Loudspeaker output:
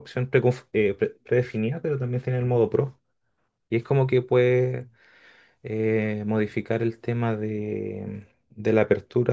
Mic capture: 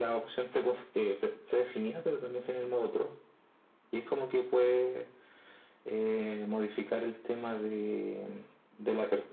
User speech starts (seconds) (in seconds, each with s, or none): none